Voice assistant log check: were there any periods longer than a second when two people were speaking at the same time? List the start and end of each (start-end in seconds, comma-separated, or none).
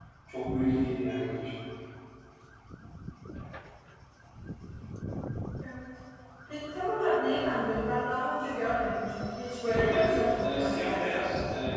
9.6-11.2